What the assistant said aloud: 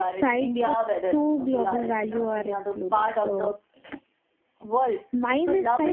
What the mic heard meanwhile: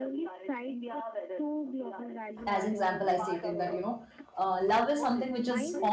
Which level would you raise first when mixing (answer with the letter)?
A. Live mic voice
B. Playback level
B